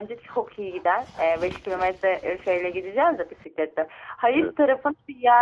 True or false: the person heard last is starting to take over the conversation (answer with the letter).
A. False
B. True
A